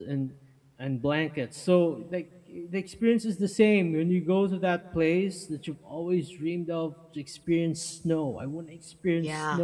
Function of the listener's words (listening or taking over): listening